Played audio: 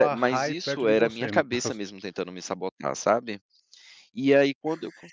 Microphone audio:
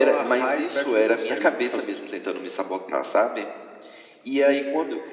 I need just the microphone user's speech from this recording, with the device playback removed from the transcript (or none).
none